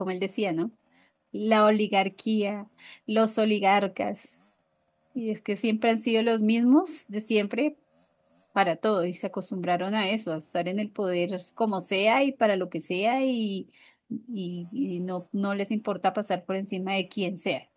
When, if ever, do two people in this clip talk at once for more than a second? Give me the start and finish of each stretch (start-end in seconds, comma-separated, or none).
none